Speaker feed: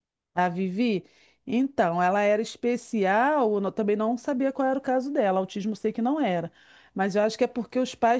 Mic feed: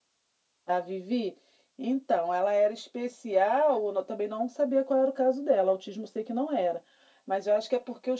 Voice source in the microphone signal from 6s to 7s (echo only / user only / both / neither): echo only